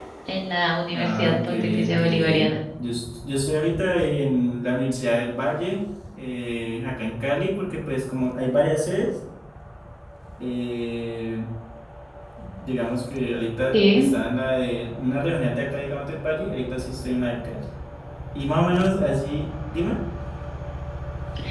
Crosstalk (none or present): present